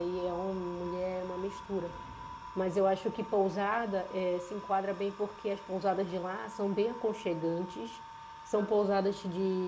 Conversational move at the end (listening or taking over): listening